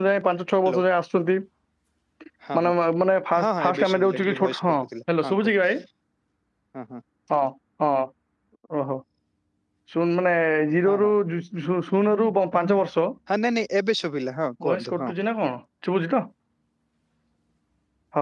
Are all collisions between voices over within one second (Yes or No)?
No